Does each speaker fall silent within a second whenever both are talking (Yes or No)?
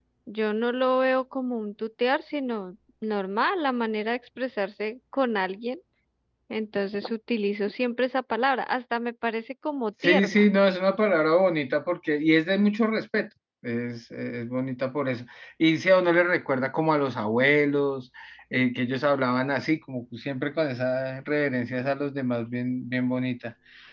Yes